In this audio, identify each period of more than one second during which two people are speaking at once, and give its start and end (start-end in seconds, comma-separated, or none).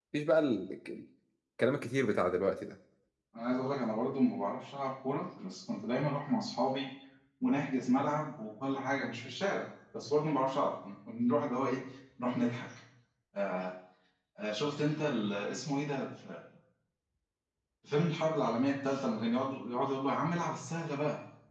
none